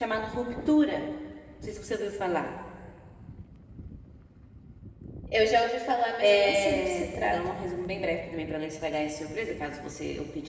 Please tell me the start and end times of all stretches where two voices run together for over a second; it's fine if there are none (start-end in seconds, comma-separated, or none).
6.2-7.6